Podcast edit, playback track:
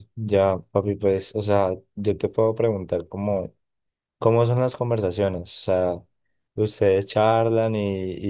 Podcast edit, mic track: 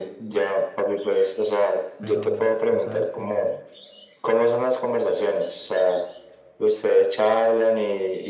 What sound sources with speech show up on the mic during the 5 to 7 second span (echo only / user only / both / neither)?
echo only